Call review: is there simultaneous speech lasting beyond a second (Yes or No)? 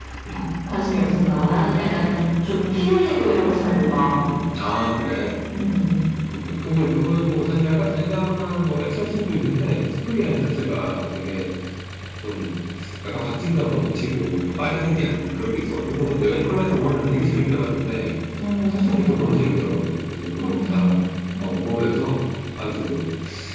No